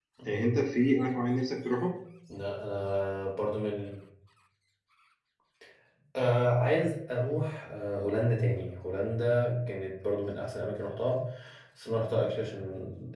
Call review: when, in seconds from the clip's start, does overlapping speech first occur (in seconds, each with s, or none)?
none